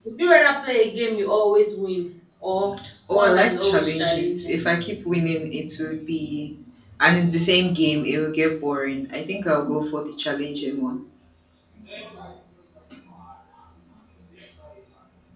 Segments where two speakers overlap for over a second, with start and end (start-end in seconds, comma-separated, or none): 3.1-4.5